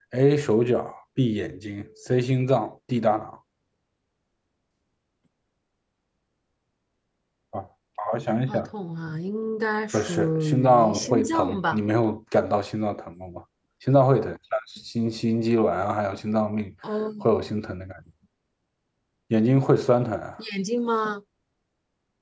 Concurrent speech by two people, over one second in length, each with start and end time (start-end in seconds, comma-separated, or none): 9.9-11.8